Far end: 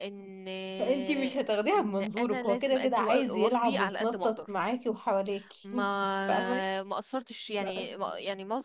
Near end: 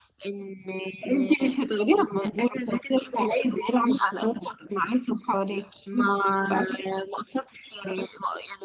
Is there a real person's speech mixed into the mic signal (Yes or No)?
No